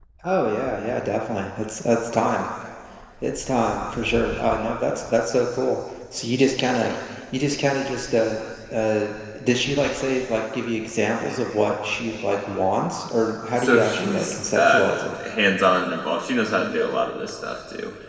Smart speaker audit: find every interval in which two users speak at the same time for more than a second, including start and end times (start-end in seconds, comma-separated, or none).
13.6-14.9